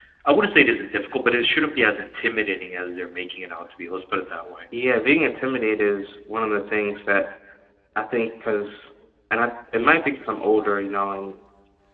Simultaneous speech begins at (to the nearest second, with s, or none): none